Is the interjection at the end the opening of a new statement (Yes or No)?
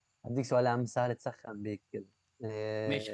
Yes